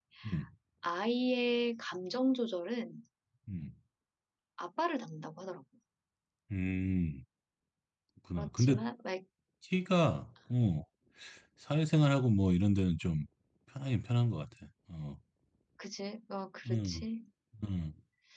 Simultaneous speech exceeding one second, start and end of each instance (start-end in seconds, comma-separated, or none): none